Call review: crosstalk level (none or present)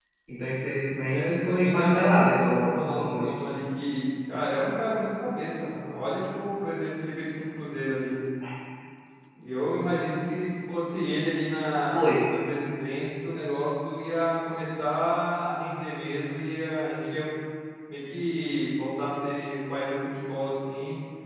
present